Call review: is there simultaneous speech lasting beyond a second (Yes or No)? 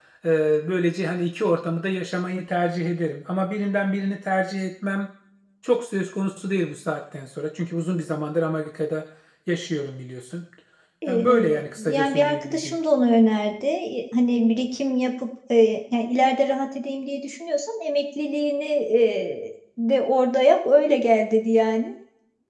Yes